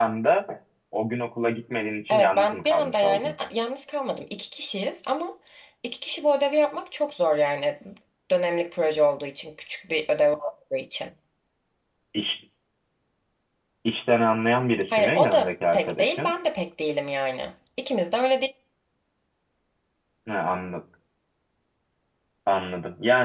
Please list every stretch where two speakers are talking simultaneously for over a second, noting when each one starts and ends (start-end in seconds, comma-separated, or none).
2.1-3.3, 14.9-16.3